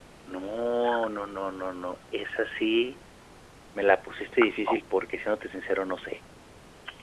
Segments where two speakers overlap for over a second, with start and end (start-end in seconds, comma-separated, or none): none